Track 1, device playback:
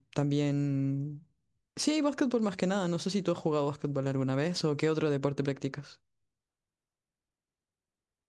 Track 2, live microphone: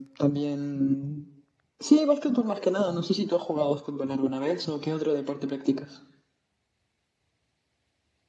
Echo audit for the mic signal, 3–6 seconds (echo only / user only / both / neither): echo only